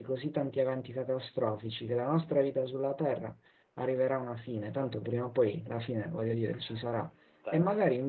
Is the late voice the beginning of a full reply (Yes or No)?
No